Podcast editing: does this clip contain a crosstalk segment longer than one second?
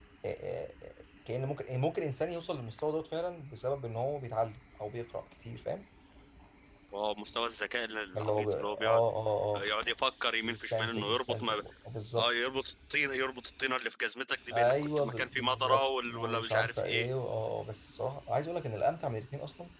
Yes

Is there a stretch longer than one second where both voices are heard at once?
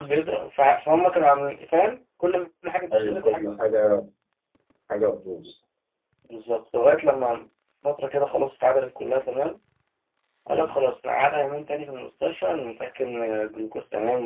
No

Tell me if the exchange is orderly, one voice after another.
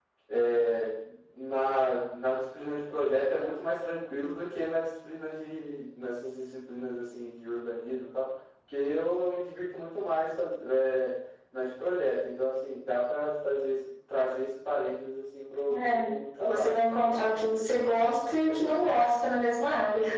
No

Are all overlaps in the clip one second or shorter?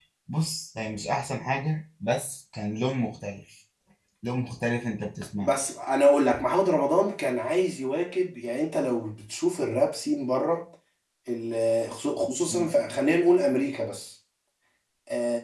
Yes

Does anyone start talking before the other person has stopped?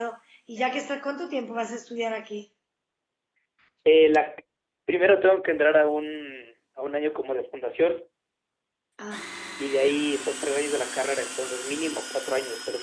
No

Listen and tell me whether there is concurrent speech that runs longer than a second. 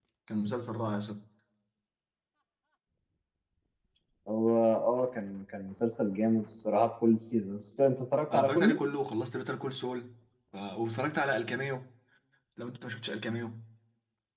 No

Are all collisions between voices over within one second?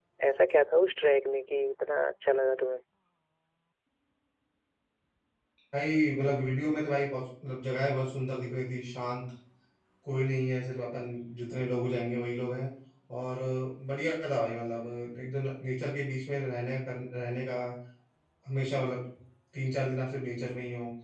Yes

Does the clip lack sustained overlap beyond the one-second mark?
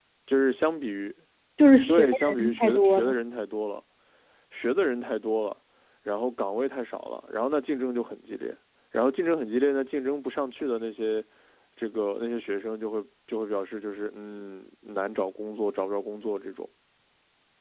No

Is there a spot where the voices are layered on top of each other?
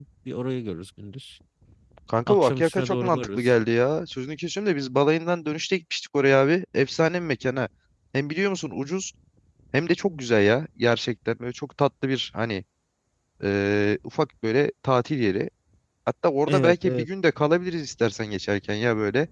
Yes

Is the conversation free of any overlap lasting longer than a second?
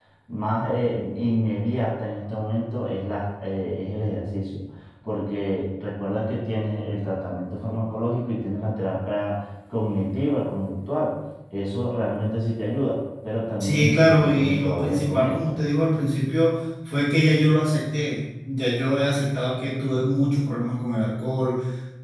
No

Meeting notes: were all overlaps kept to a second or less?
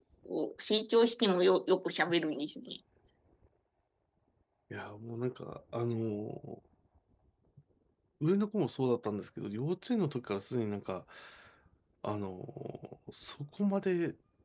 Yes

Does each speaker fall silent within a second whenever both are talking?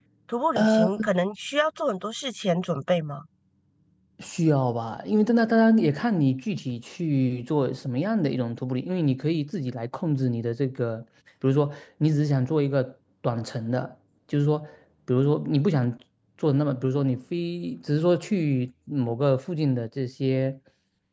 Yes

